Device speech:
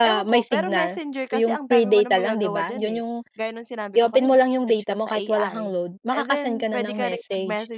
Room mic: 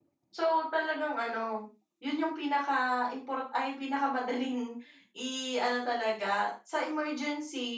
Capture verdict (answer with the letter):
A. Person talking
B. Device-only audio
A